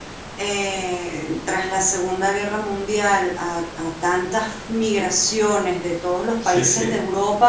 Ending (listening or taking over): listening